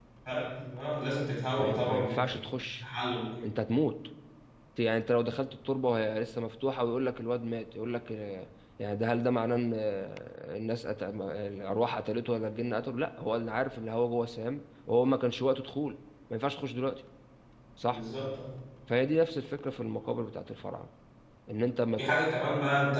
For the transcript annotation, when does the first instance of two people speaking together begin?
1.6 s

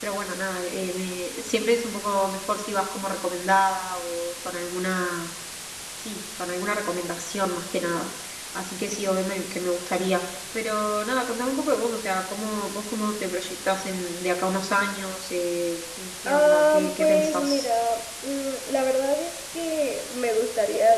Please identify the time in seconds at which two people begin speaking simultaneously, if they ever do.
16.2 s

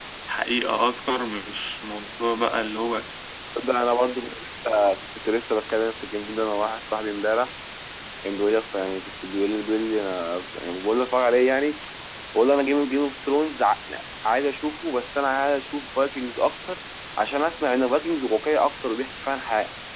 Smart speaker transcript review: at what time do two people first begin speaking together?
none

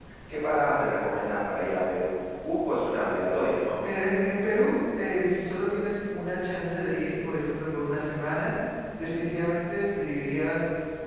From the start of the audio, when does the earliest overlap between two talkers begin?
none

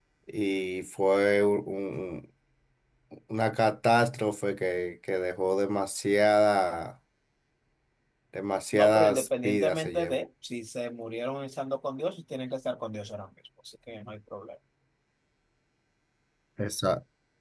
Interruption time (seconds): 8.7 s

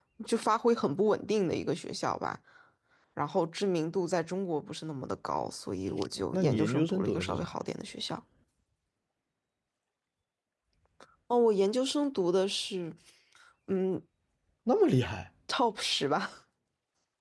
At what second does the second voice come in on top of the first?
6.3 s

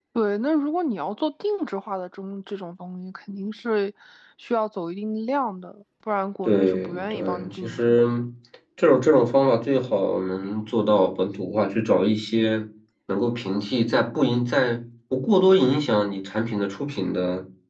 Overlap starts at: 6.4 s

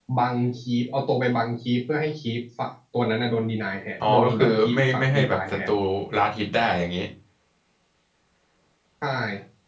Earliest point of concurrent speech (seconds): 4.0 s

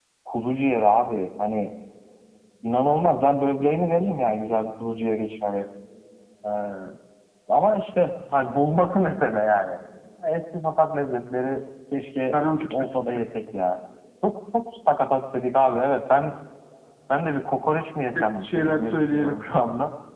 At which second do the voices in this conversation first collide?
18.1 s

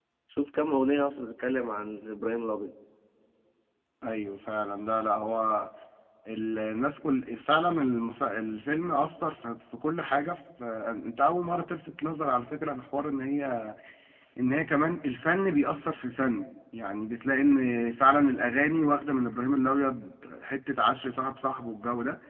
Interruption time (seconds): none

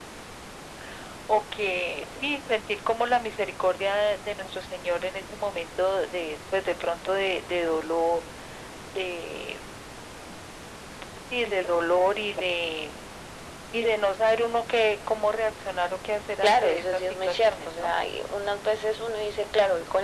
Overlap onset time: 16.4 s

